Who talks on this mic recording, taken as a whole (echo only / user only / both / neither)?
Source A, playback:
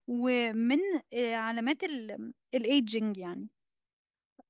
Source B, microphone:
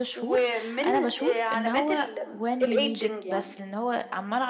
both